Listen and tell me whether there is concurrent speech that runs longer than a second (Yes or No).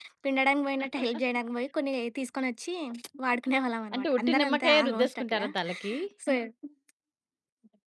Yes